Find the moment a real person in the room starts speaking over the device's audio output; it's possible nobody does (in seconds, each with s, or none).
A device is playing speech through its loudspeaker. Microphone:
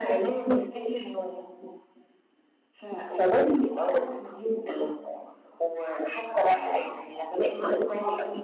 none